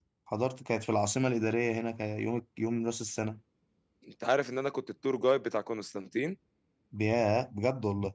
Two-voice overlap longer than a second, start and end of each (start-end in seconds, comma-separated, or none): none